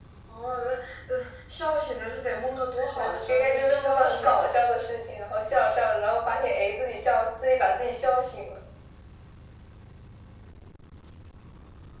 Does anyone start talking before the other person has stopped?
Yes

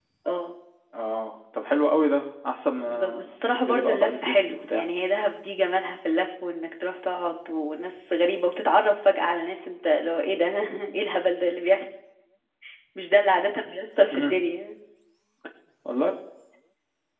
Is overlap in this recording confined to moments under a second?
No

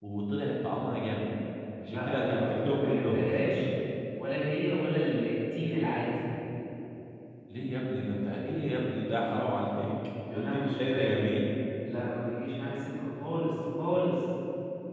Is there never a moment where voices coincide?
No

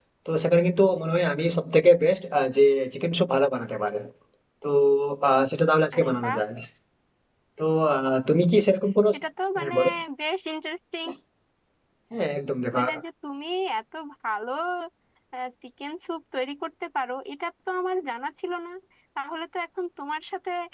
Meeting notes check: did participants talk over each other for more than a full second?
No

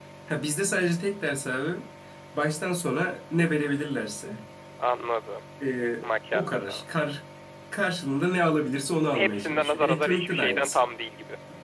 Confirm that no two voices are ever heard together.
No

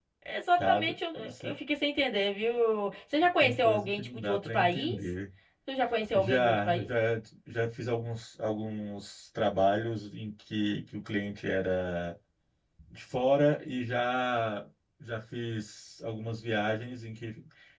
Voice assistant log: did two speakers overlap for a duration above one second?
Yes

